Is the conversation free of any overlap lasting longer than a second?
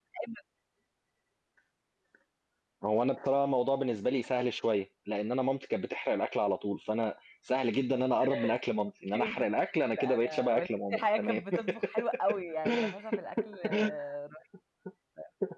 No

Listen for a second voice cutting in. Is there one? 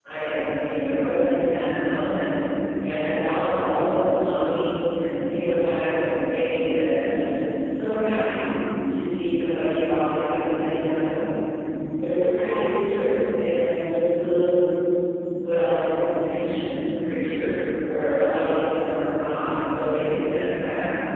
No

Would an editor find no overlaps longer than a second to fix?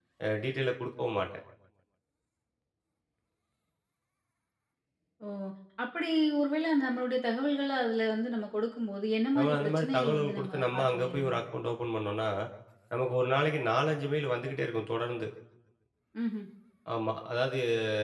No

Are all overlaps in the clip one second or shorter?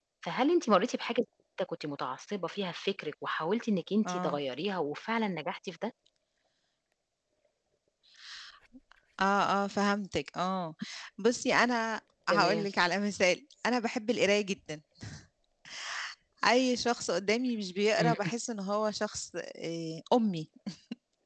Yes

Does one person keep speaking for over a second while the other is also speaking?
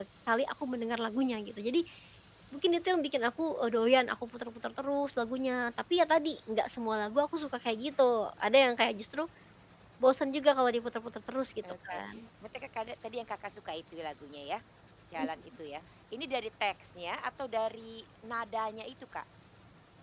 No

